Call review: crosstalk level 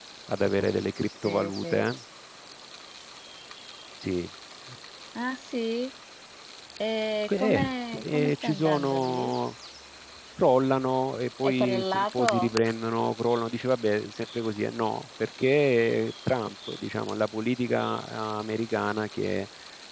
present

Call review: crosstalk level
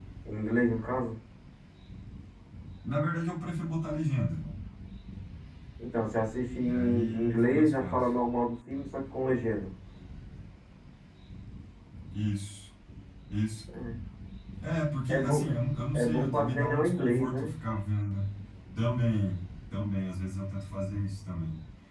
present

